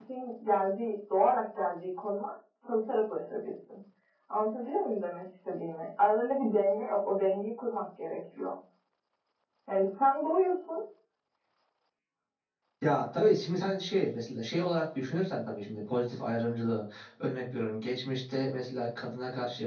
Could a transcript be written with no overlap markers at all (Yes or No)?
Yes